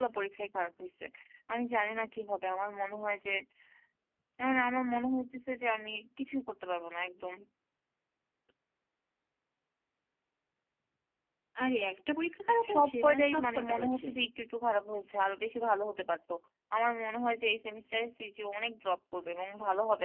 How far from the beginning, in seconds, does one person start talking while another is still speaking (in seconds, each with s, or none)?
12.6 s